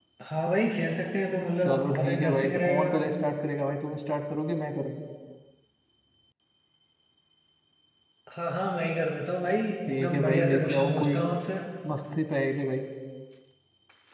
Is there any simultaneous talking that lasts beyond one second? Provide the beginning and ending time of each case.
1.6-2.9, 9.9-11.2

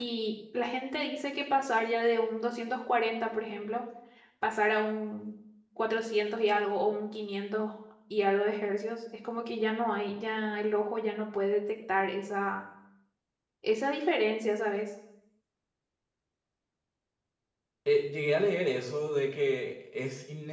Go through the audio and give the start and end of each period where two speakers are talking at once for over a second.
none

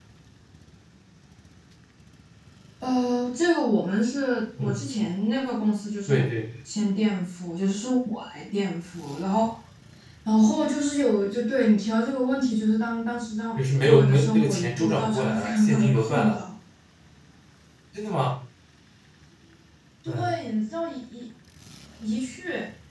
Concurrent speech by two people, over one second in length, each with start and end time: 13.6-16.4

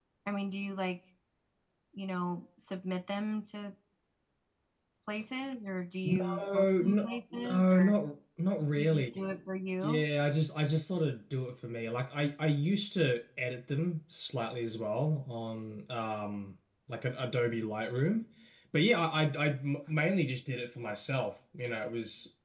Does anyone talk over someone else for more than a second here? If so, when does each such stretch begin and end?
6.0-8.0

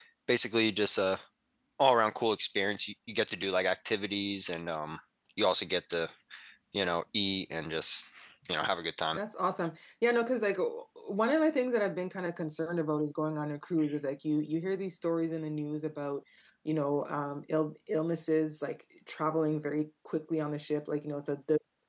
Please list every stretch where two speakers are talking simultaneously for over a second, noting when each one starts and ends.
none

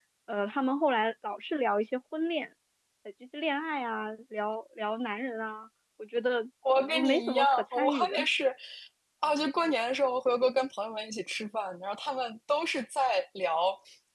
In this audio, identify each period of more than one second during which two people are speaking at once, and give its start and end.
6.8-8.3

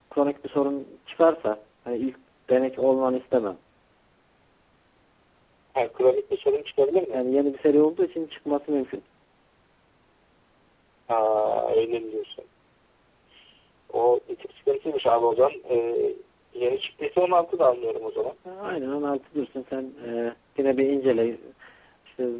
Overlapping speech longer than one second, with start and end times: none

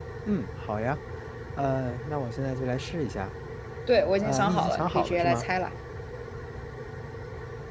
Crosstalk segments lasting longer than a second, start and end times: 4.2-5.4

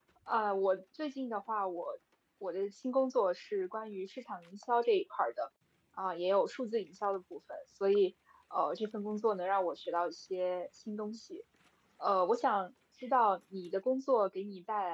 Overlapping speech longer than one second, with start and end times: none

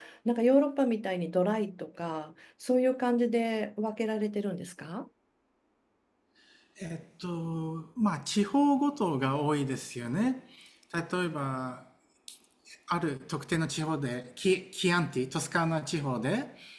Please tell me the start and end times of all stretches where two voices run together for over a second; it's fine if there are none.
none

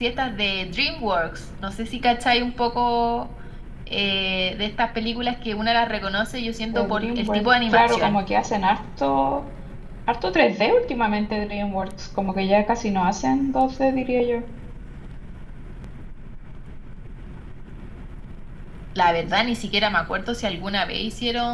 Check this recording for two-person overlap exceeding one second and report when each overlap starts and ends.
6.7-8.2

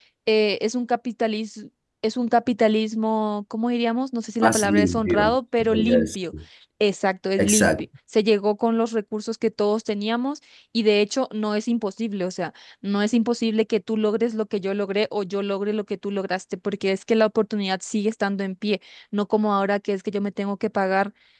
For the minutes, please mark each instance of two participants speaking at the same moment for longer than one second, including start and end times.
4.4-6.2

